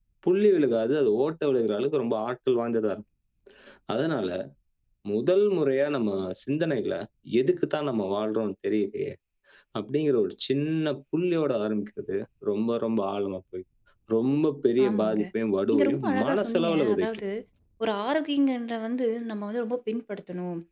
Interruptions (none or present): present